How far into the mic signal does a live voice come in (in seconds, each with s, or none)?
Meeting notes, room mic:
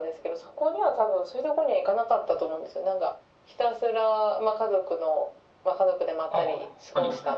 6.3 s